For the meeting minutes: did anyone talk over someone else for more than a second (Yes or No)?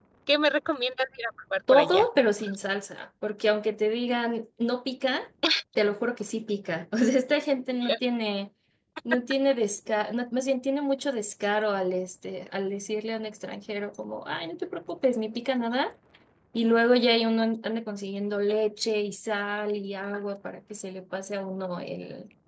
No